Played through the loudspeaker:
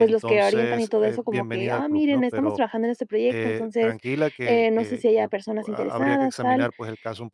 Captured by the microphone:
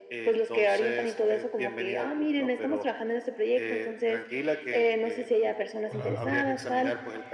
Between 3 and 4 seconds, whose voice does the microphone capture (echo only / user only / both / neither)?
echo only